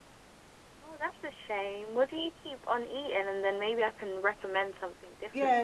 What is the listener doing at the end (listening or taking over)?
taking over